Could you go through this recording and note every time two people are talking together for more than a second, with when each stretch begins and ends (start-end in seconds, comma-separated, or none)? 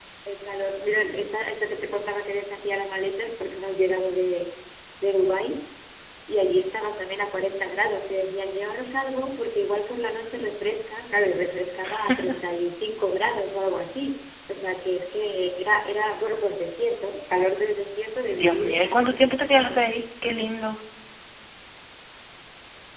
18.3-19.8